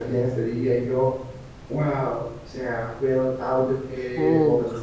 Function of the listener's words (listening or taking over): listening